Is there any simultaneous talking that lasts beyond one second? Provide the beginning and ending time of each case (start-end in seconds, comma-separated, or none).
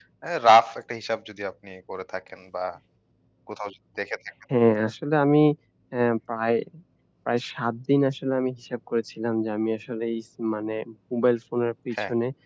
none